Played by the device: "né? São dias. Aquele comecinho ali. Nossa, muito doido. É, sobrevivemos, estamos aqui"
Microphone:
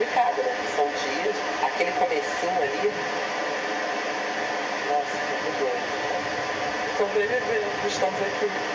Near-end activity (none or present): none